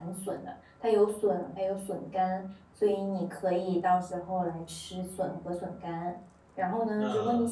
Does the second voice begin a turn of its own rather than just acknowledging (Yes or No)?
No